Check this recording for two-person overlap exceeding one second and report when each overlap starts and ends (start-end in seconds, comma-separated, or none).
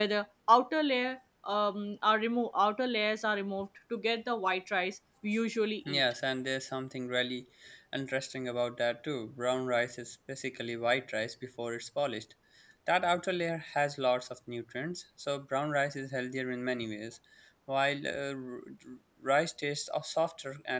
none